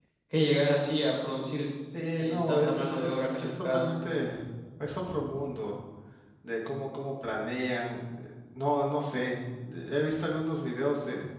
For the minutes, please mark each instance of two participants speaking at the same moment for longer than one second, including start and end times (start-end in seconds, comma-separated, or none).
2.2-3.9